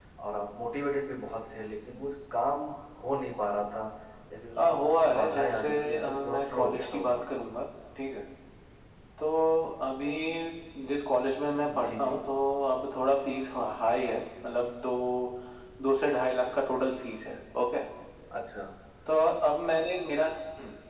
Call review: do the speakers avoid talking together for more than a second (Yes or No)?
No